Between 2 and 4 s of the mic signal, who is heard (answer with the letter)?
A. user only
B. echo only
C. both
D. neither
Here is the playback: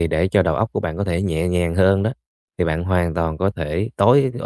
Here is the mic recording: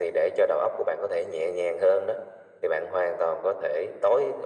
B